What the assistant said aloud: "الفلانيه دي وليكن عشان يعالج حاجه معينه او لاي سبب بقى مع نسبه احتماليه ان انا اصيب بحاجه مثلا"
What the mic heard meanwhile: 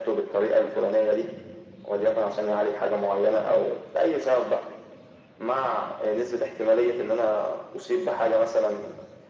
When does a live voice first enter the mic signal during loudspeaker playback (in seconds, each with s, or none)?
none